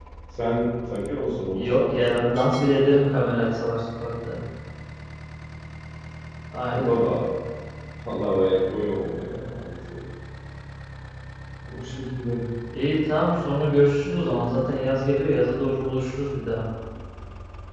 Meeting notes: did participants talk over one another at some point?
Yes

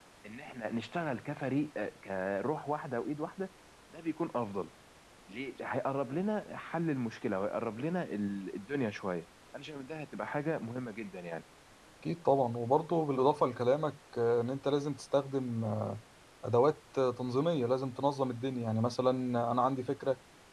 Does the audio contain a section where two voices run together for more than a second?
No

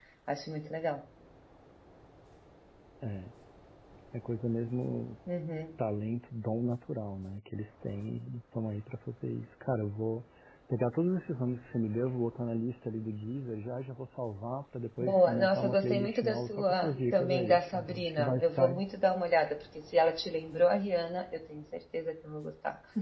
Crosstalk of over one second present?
Yes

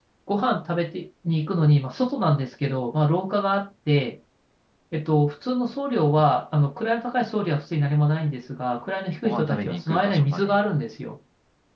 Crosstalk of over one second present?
Yes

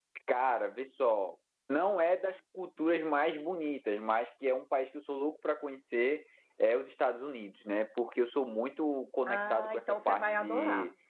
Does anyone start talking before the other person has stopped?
Yes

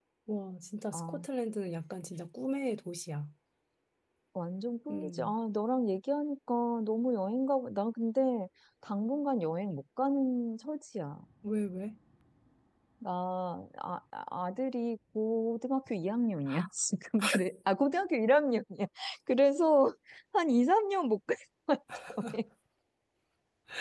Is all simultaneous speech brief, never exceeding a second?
Yes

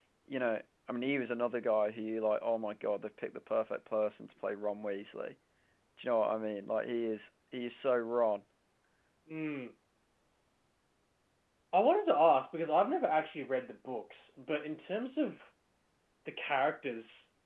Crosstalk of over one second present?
No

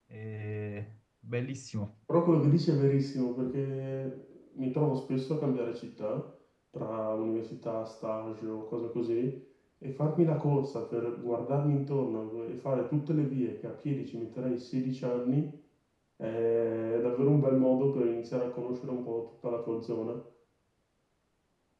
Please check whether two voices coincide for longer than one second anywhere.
No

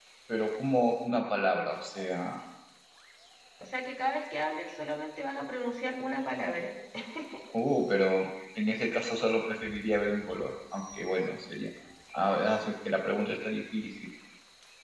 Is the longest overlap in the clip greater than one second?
No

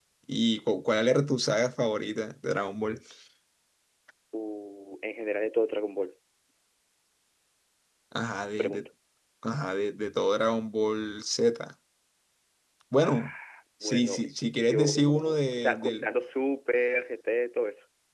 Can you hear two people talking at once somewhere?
Yes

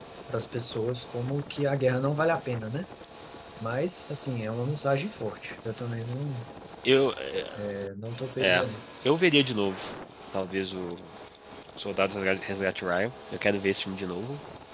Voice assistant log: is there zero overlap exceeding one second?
Yes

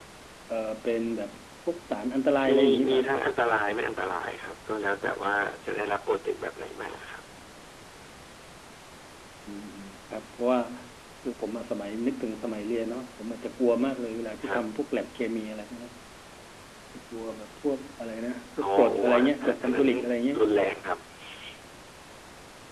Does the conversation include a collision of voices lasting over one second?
Yes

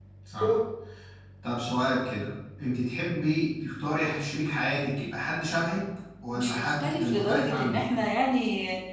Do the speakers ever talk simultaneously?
Yes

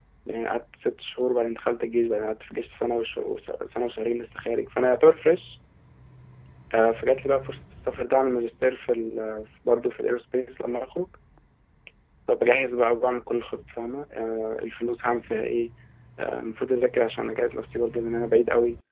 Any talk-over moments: No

